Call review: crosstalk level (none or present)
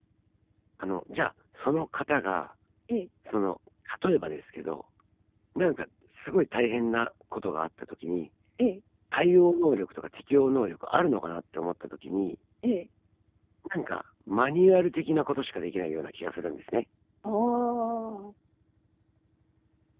none